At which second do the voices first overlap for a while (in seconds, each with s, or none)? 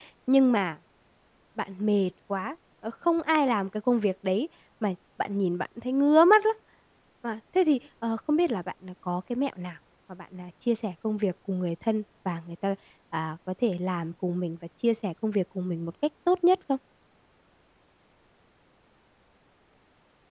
none